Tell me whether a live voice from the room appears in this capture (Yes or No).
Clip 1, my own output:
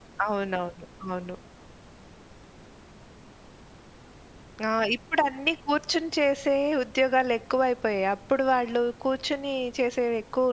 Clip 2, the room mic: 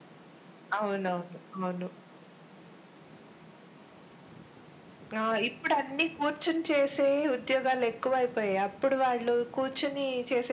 No